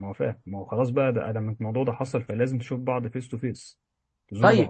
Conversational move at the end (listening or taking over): taking over